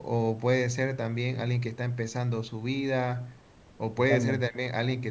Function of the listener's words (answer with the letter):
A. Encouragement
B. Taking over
A